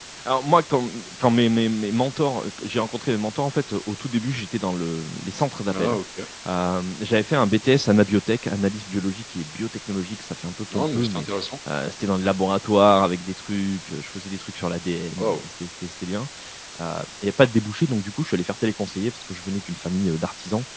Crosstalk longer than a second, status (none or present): none